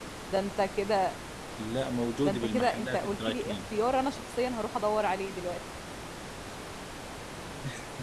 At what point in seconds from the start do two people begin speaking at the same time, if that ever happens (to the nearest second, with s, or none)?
2 s